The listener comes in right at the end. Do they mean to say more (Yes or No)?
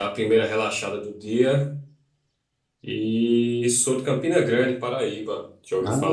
Yes